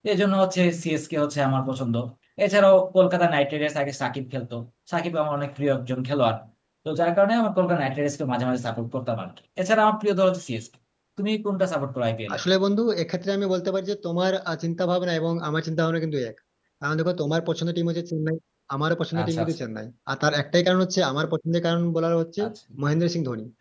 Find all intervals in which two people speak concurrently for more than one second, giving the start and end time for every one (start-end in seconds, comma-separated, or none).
none